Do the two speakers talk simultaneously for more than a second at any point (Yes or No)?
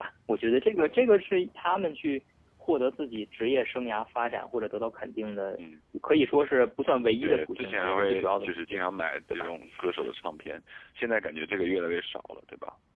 Yes